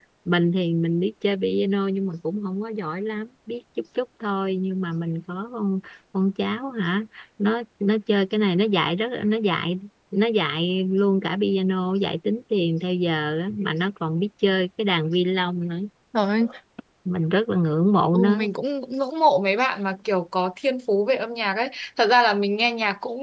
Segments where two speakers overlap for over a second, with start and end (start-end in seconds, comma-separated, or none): none